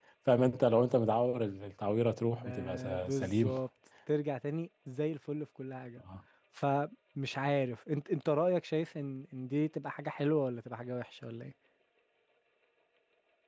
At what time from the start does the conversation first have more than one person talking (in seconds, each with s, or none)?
2.3 s